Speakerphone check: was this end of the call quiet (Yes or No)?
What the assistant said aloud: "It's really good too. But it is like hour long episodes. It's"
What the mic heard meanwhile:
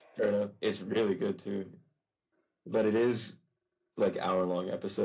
Yes